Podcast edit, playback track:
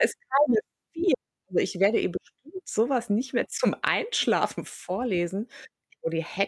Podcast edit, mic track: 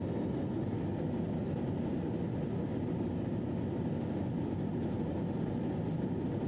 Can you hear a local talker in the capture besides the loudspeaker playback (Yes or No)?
No